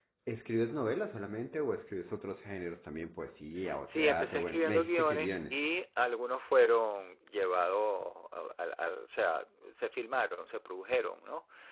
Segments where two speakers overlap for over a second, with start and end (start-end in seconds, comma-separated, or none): 3.9-5.5